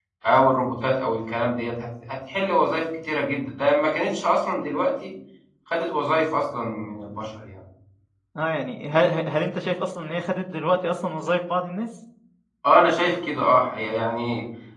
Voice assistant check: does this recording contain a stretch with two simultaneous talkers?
No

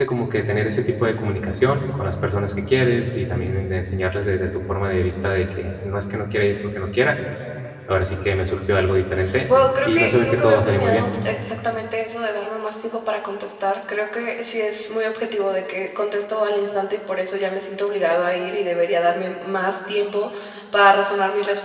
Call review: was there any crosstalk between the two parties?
Yes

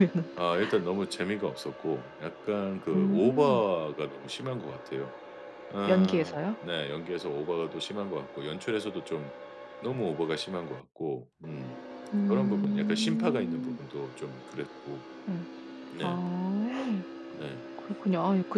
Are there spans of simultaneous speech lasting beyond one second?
Yes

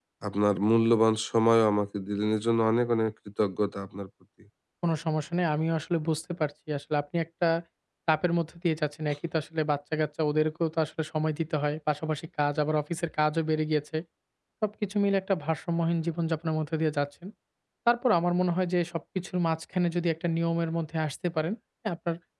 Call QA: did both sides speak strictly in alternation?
Yes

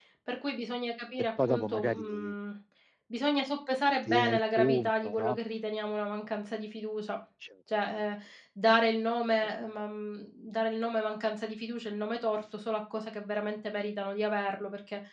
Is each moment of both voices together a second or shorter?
No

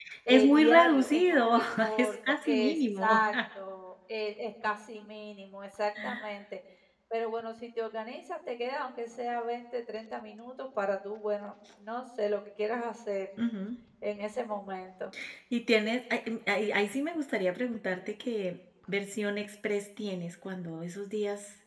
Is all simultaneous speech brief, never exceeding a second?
No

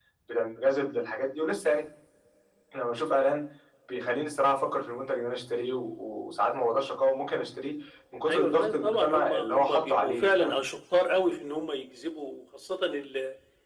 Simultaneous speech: Yes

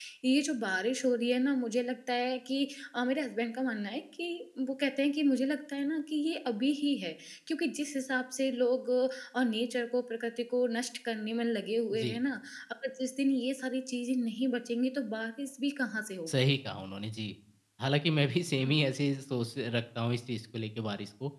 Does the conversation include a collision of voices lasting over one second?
No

